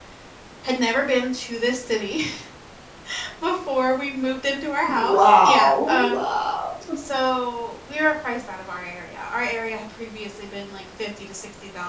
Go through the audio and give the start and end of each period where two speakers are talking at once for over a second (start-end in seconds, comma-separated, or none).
4.9-6.2